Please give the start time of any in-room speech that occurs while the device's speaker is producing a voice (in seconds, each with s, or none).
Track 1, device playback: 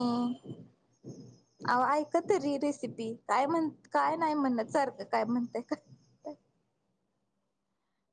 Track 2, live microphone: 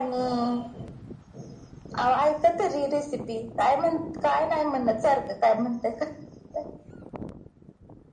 none